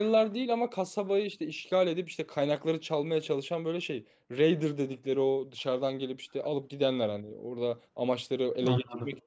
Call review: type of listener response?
listening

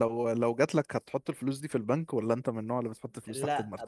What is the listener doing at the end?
taking over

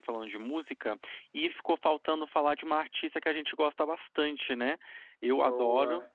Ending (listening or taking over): listening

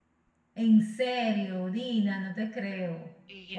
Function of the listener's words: taking over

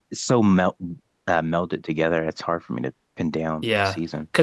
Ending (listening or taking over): taking over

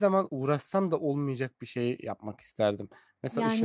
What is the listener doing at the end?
taking over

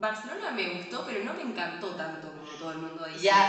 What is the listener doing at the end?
taking over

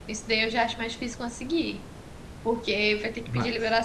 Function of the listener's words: listening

